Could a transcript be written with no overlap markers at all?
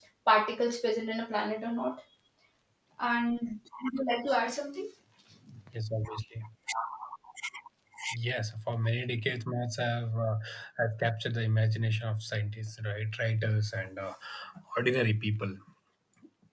Yes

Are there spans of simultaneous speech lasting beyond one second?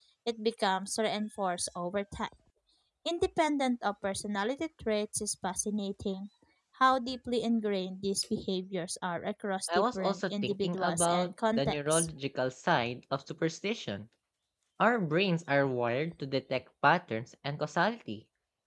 Yes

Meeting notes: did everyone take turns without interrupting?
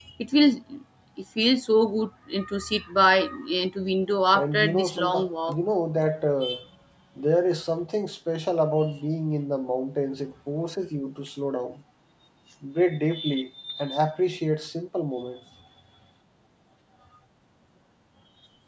No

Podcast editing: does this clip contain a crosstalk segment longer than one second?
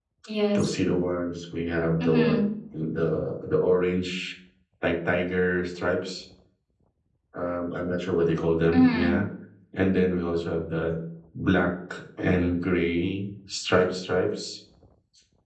No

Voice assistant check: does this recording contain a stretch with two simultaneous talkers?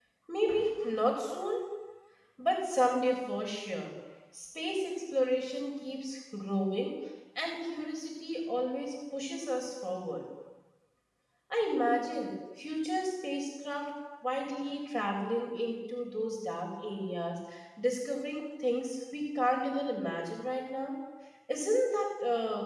No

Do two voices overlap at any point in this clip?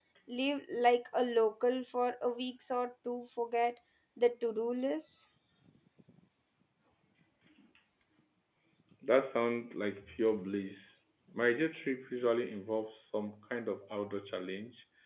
No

